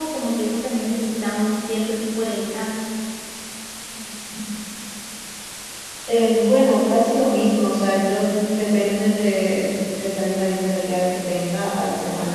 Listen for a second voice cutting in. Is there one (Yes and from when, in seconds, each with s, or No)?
No